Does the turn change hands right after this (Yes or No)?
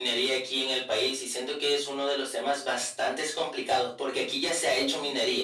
No